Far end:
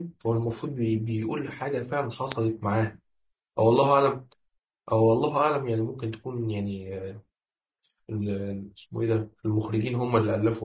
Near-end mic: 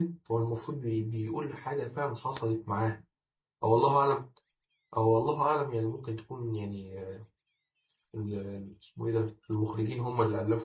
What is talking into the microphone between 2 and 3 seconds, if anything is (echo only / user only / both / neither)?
echo only